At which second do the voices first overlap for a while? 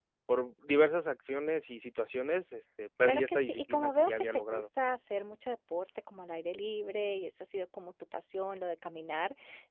3.0 s

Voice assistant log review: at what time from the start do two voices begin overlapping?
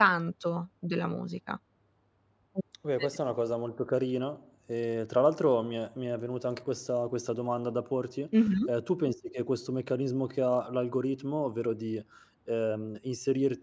none

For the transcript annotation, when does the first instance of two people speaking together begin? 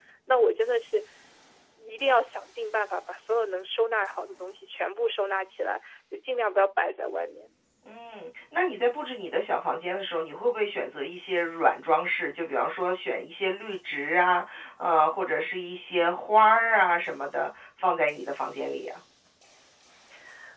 none

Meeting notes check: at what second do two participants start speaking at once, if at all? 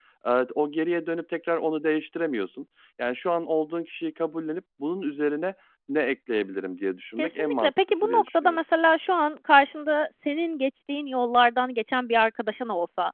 7.2 s

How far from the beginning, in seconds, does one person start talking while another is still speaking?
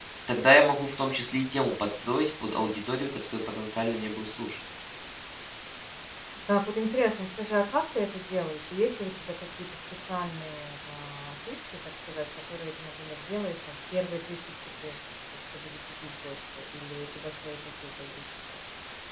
none

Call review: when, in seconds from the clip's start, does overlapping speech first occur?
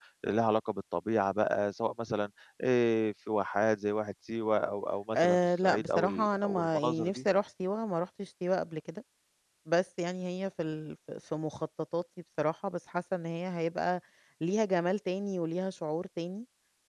5.1 s

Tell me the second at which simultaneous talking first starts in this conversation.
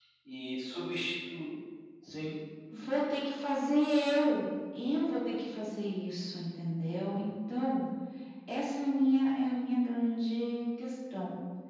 none

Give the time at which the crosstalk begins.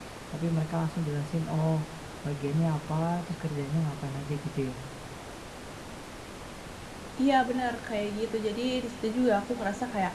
none

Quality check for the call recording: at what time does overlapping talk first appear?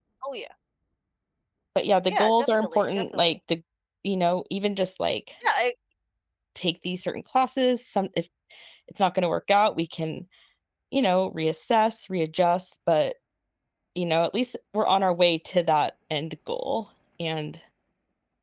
2.1 s

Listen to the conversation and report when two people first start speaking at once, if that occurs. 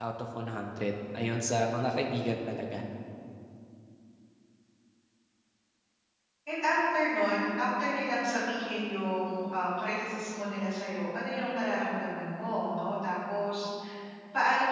none

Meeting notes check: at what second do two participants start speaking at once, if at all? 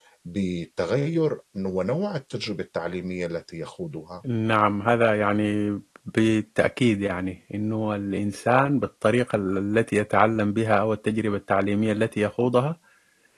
none

